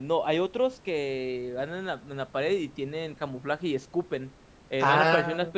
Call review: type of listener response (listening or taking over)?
listening